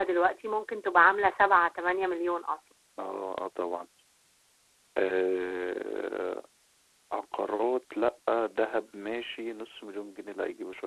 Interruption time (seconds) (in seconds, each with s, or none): none